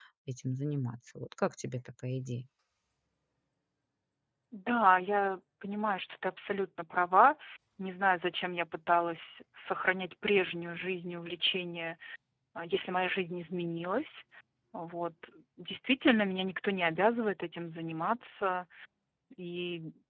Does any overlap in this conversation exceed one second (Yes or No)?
No